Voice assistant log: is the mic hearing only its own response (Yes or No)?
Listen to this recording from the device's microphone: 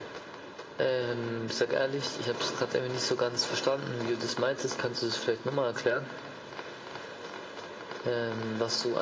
Yes